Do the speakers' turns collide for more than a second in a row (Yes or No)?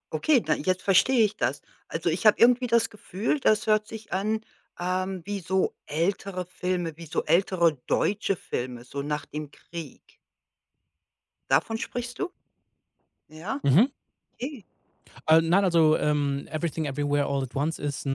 No